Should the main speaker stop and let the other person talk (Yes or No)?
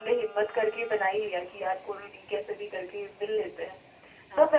No